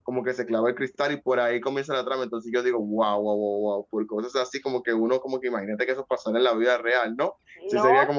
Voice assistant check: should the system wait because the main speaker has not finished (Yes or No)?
No